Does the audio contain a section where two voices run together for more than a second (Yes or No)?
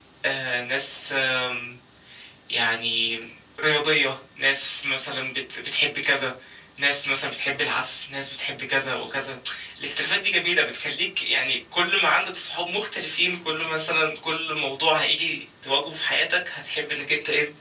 No